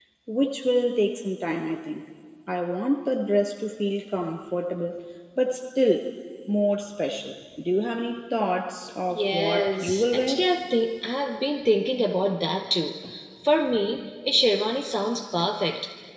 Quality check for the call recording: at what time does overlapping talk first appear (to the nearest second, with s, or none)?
9 s